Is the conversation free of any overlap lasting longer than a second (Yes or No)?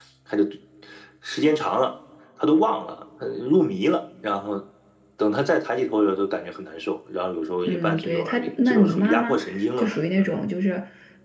No